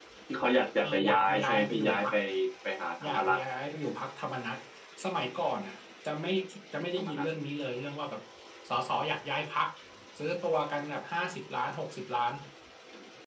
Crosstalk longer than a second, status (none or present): present